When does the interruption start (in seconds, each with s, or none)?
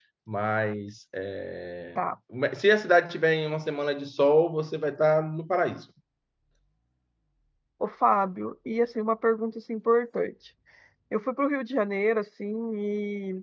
none